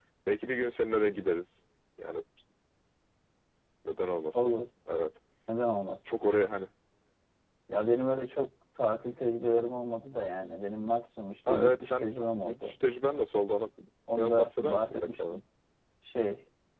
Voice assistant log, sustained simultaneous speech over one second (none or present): present